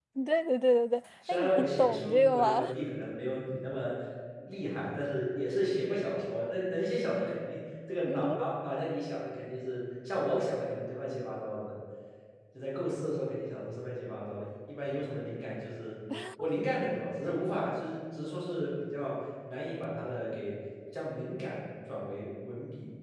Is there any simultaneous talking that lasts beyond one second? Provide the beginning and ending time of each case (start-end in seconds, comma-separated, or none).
1.3-2.7